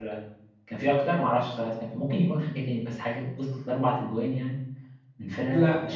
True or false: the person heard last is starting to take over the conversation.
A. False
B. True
B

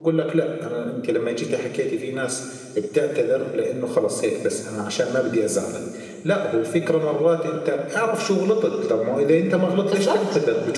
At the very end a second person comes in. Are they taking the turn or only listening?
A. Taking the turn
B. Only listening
B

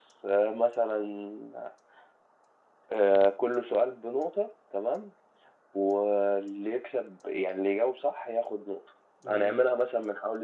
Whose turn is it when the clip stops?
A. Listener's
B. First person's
B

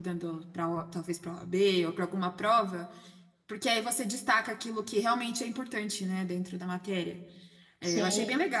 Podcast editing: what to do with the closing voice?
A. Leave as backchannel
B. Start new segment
A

